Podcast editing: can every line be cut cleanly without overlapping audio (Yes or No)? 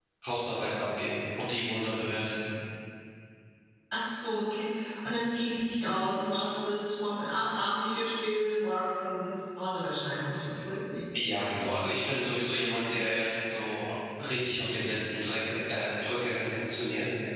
Yes